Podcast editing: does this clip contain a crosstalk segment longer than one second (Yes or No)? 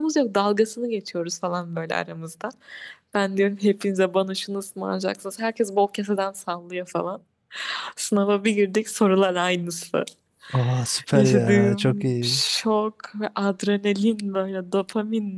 Yes